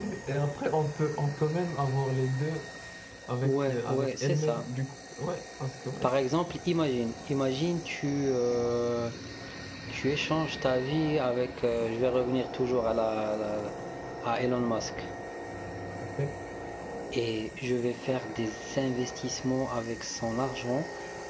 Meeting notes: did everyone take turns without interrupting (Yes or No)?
No